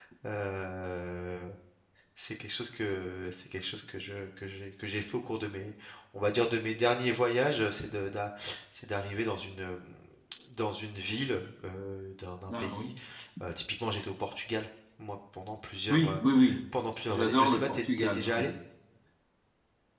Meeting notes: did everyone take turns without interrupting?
No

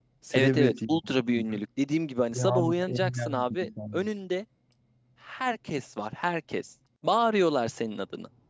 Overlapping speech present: Yes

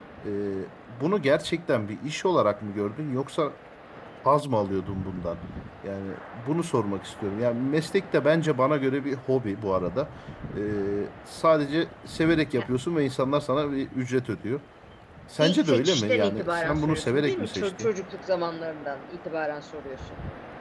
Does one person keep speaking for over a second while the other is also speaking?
Yes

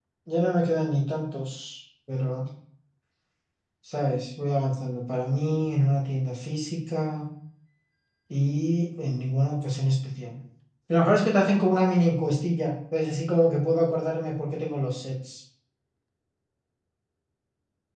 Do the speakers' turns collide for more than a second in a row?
No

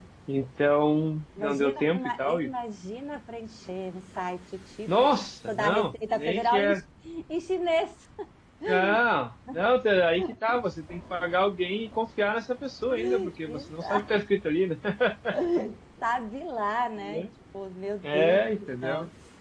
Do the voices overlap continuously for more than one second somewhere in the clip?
Yes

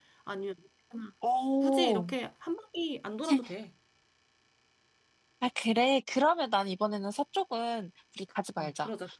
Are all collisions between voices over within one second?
Yes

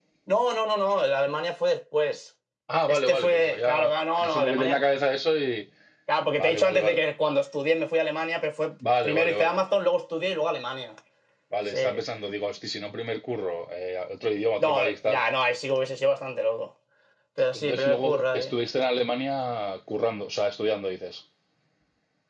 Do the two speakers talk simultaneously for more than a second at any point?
Yes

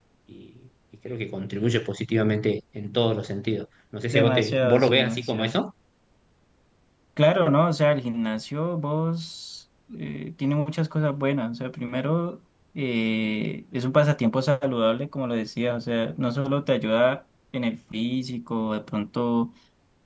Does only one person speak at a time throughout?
No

